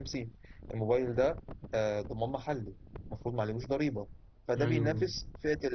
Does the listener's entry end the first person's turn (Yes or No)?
No